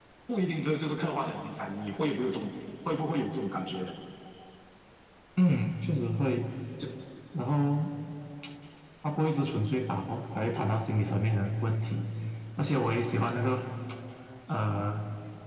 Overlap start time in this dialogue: none

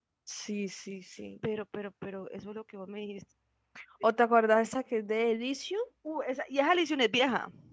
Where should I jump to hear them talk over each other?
none

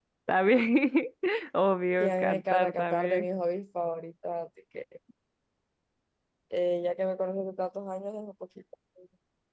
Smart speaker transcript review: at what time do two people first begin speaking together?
2.0 s

